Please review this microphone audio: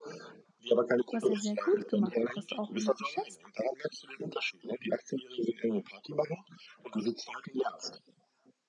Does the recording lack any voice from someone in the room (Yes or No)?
No